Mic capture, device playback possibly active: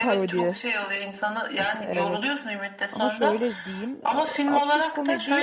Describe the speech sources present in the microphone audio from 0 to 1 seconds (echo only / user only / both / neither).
both